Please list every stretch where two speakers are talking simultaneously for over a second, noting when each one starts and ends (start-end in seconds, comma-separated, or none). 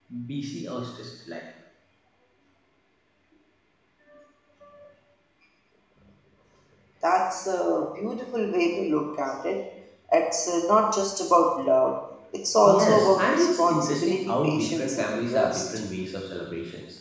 12.6-15.7